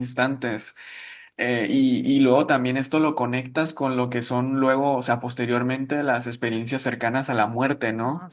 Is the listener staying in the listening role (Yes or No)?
Yes